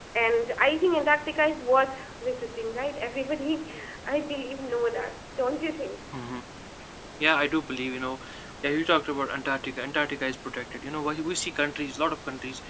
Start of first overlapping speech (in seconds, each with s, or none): none